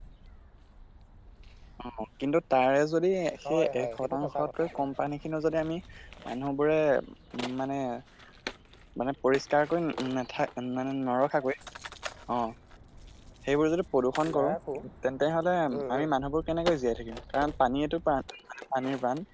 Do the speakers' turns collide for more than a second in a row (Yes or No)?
Yes